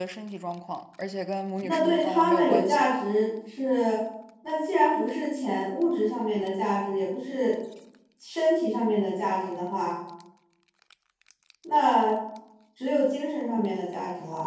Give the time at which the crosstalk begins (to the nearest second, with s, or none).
2 s